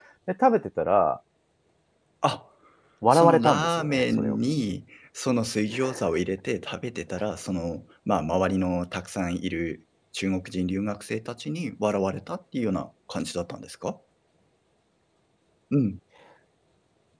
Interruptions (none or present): present